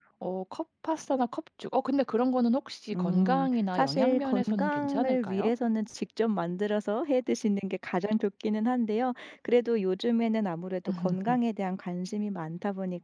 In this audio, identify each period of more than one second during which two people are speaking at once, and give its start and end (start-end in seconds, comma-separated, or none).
3.0-5.5